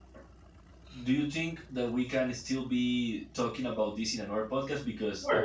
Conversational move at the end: taking over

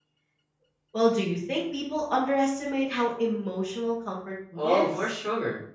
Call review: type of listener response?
taking over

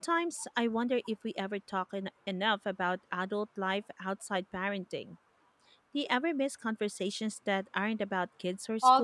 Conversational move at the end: taking over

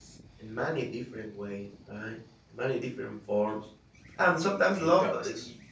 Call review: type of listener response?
listening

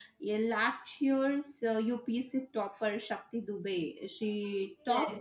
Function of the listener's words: taking over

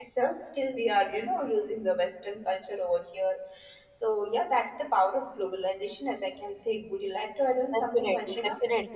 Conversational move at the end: taking over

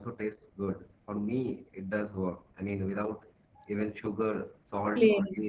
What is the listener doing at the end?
listening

